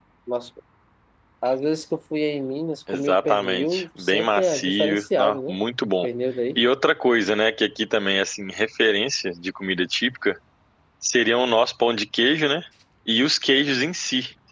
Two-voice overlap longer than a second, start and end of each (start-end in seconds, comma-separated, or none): 2.9-5.6